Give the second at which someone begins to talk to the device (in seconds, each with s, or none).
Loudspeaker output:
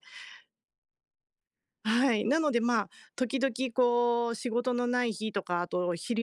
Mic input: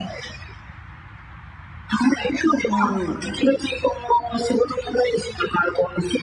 2.6 s